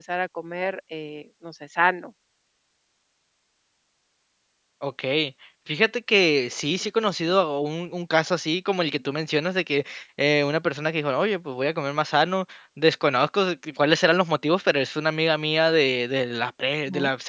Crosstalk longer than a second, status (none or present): none